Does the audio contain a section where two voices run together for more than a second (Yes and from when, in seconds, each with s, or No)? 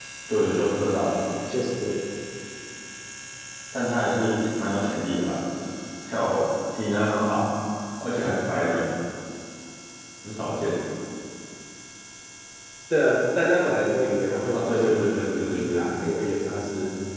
Yes, from 14.5 s